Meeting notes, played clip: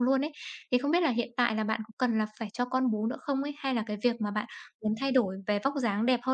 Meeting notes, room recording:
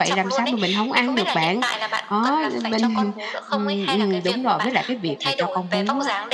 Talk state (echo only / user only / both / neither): both